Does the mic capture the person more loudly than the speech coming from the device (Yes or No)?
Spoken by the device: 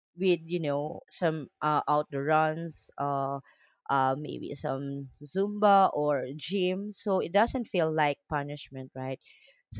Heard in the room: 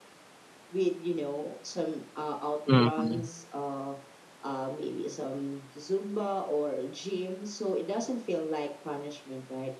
Yes